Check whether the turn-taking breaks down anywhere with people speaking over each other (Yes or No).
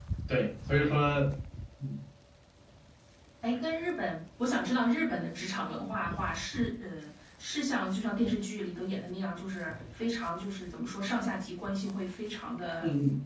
No